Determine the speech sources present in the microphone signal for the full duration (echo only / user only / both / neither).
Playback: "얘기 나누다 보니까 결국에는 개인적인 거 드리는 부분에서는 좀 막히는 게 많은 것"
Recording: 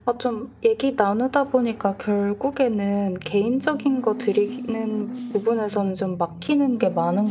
echo only